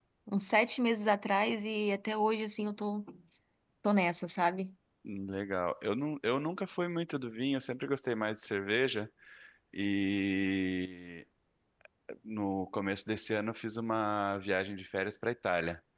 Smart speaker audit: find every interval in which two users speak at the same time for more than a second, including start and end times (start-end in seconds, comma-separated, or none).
none